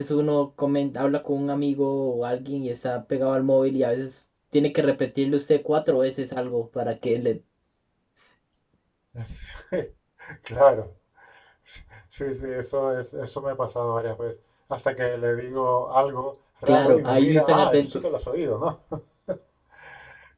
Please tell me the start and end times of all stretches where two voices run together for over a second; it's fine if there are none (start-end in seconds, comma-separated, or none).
16.7-18.0